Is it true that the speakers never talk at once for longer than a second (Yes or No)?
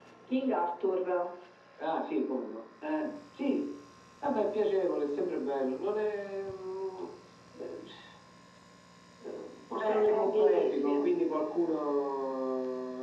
No